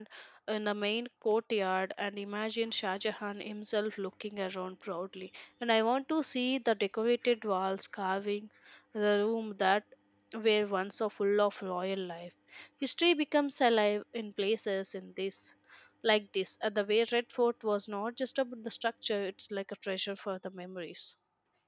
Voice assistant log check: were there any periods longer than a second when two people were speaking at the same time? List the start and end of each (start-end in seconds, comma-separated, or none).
none